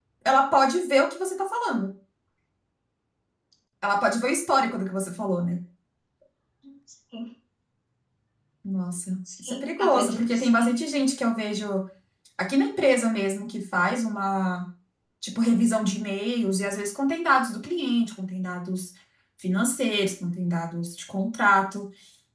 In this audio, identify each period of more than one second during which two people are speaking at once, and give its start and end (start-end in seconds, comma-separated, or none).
9.4-10.8